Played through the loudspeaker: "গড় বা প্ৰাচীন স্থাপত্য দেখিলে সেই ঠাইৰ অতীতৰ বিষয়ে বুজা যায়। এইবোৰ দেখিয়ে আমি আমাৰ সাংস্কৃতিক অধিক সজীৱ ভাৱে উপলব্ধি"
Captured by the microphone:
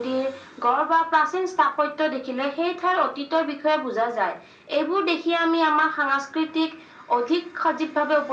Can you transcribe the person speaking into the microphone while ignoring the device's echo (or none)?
none